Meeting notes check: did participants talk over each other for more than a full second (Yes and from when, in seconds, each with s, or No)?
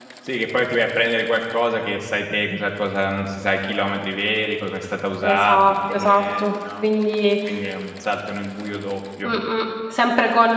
Yes, from 5.2 s